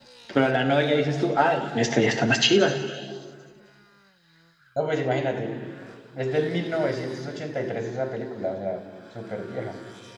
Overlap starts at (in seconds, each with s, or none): none